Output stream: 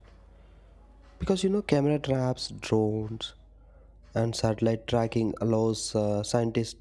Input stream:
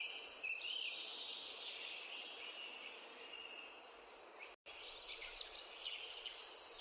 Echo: none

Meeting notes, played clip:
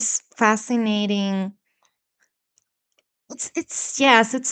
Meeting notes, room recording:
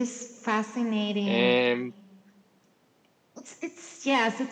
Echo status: present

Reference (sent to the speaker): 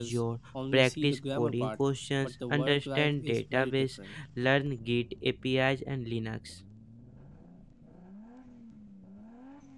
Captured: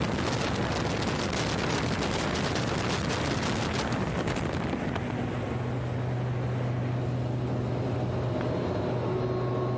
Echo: none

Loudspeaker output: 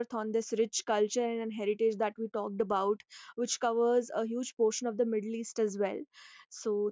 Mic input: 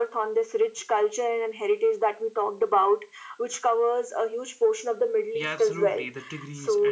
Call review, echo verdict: present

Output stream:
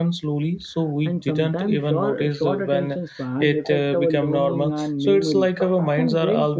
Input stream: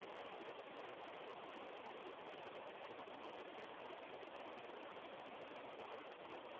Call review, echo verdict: none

